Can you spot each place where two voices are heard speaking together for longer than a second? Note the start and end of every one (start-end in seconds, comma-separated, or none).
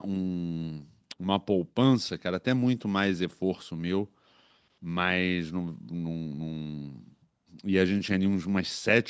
none